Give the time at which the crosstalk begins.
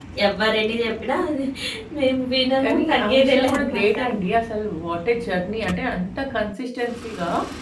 3 s

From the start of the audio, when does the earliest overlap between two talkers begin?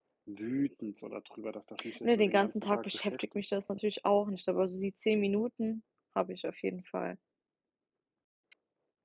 2 s

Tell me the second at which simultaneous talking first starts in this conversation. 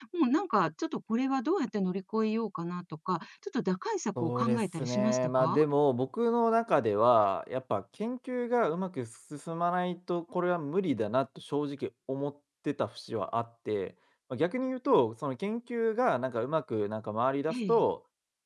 4 s

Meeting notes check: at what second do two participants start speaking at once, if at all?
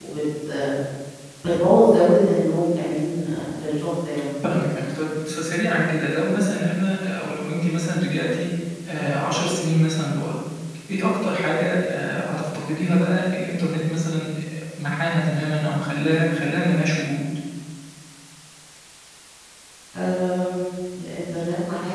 none

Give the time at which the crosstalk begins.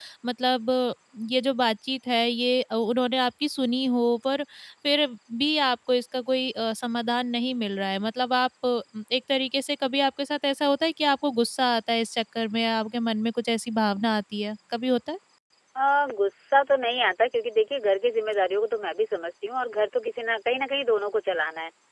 none

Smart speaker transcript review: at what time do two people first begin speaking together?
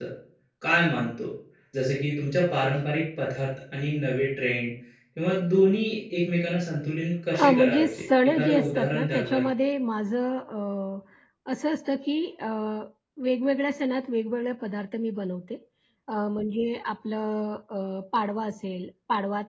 7 s

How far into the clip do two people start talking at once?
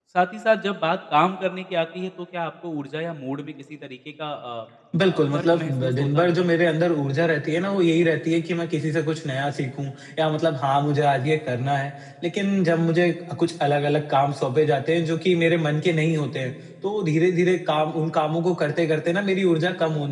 5 s

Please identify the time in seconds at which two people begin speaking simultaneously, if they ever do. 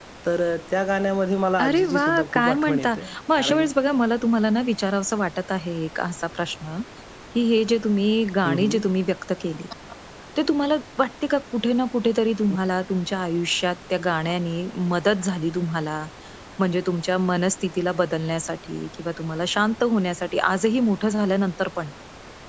2 s

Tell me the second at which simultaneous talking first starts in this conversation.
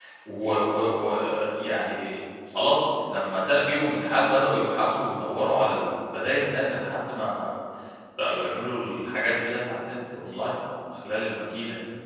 none

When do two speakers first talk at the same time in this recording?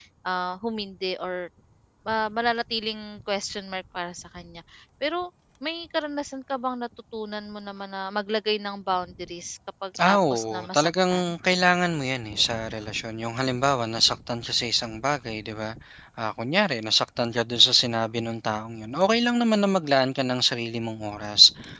10 s

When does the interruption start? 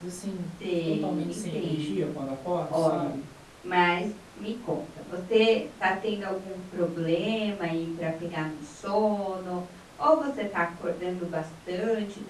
1 s

